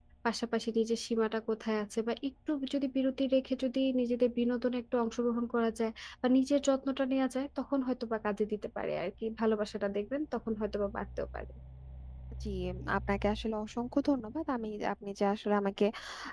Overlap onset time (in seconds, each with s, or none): none